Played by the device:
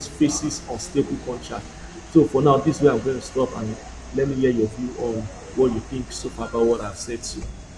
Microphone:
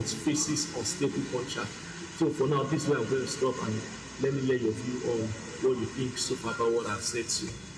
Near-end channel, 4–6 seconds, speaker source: echo only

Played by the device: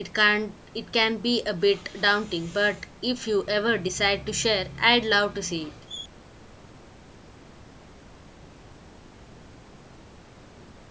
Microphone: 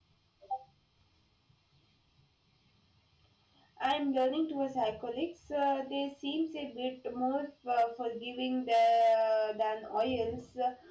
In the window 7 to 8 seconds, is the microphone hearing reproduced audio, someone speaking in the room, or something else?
user only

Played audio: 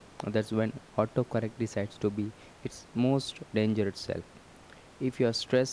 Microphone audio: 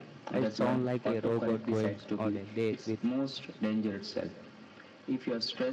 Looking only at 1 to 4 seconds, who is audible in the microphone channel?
both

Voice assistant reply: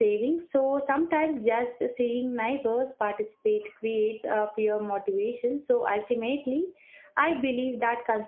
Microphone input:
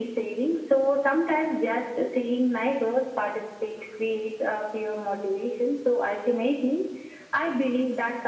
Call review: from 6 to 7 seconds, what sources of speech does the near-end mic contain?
echo only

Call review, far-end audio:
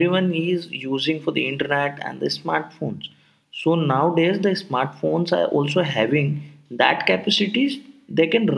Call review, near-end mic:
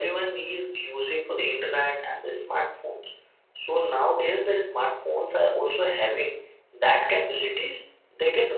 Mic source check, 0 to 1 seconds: echo only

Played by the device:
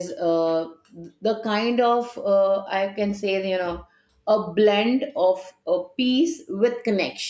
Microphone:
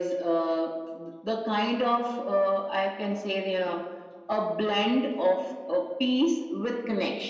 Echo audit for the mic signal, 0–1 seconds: echo only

